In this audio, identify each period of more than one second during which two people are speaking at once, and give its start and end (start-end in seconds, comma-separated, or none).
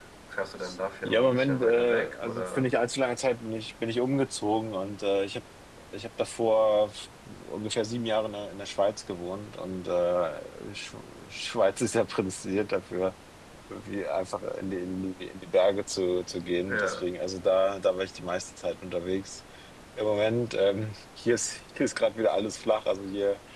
1.1-2.7